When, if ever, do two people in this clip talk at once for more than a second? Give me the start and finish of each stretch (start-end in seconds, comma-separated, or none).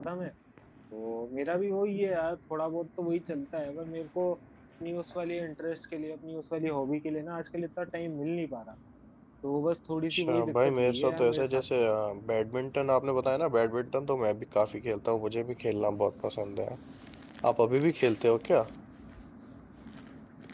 10.1-11.6